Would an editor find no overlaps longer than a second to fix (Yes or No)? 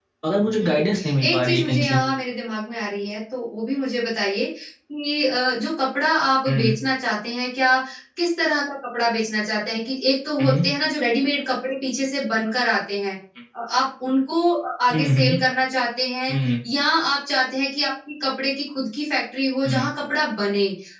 No